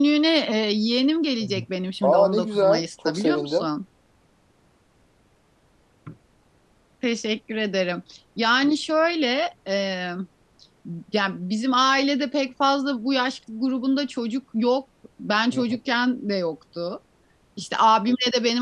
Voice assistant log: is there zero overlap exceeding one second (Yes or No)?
No